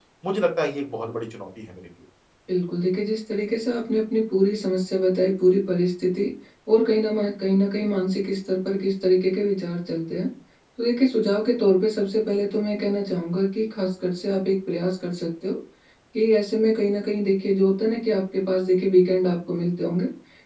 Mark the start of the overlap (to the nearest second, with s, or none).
none